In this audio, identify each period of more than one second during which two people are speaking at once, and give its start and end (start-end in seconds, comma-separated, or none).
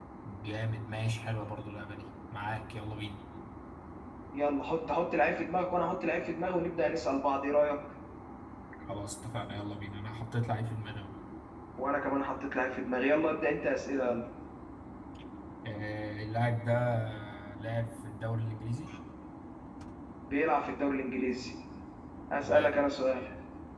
none